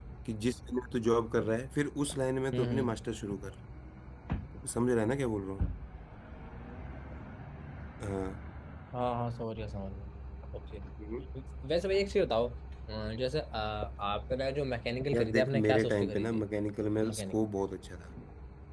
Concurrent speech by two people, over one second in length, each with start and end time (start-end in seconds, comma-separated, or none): 15.1-16.4